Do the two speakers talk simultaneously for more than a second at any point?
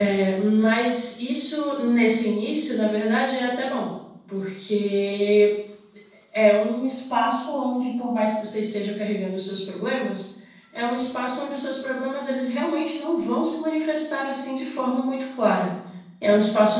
No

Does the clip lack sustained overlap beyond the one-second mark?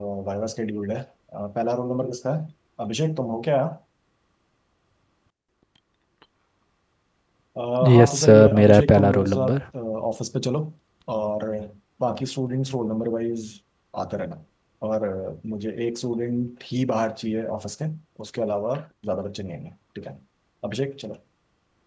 No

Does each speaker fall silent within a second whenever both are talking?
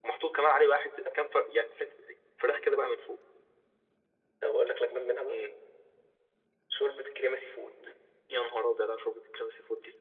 Yes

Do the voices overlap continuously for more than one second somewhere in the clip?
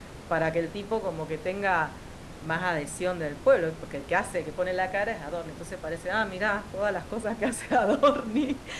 No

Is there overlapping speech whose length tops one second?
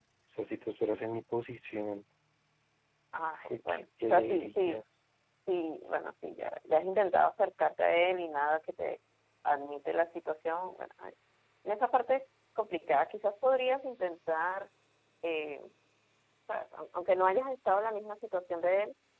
Yes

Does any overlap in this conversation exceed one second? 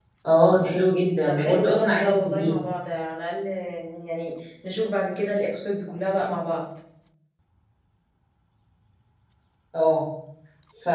Yes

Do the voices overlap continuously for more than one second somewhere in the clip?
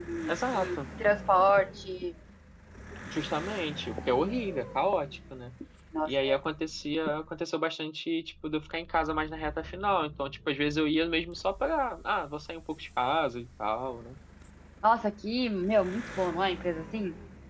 No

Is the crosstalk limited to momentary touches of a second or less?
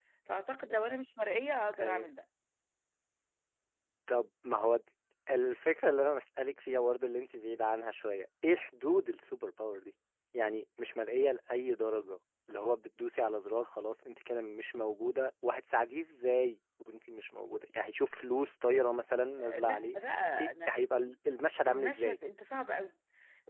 Yes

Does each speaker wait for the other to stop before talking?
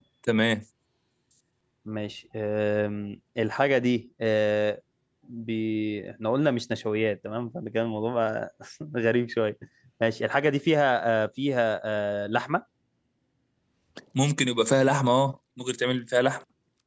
Yes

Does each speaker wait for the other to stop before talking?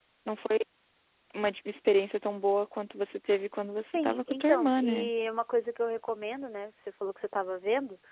No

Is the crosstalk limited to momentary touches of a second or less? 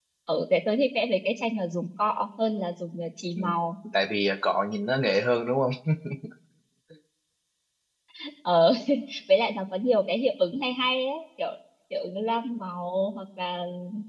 Yes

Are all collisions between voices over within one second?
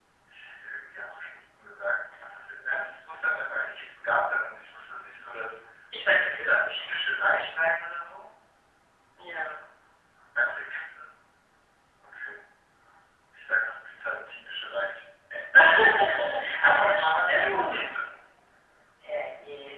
No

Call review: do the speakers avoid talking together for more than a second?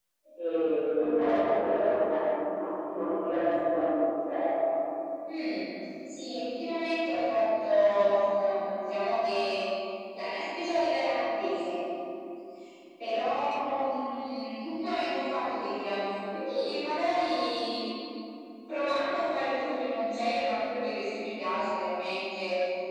Yes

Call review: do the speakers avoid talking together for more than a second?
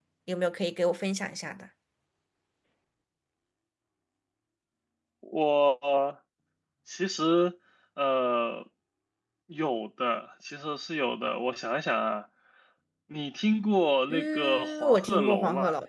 No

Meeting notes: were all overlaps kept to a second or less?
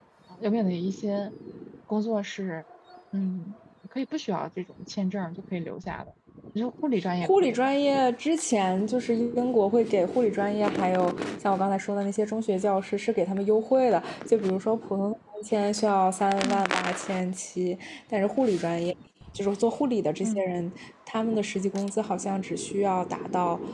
Yes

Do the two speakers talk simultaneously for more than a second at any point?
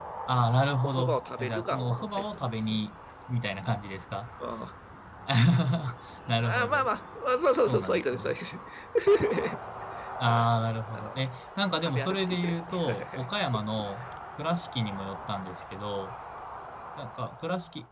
Yes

